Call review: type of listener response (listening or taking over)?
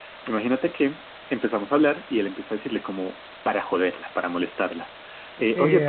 taking over